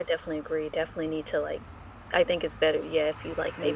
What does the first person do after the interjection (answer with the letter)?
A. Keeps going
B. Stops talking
A